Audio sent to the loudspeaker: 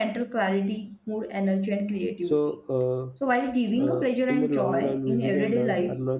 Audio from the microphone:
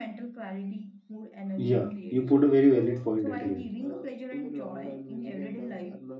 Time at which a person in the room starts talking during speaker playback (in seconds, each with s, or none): 1.6 s